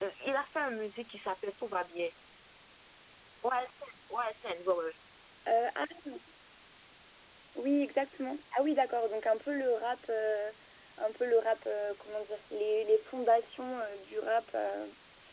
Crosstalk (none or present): none